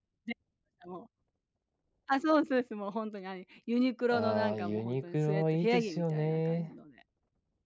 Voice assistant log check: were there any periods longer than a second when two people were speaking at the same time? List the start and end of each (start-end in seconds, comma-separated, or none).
4.1-6.7